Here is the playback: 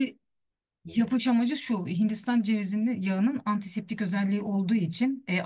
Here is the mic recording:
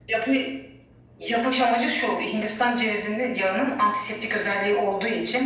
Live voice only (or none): none